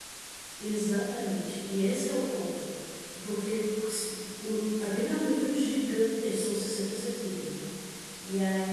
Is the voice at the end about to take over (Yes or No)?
No